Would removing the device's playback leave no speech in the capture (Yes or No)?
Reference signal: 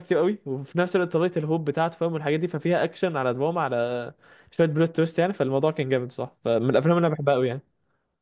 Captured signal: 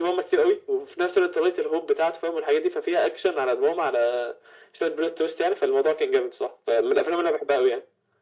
Yes